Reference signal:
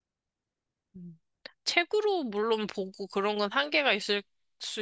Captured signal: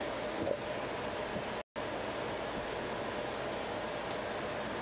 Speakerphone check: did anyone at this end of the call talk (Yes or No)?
No